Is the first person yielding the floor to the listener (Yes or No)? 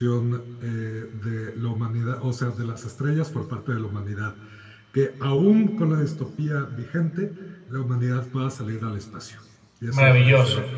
Yes